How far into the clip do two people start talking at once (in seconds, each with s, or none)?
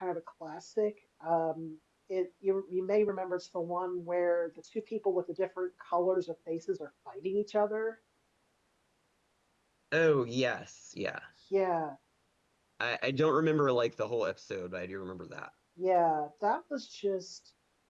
none